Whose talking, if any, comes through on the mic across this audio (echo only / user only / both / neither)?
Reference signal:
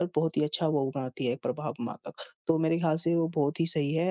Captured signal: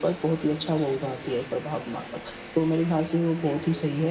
echo only